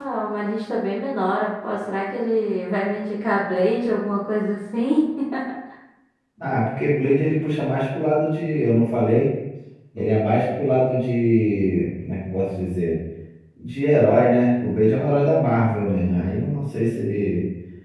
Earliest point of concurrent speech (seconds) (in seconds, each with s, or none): none